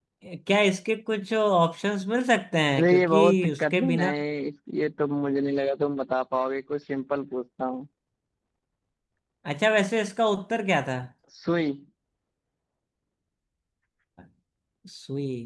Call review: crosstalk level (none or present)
present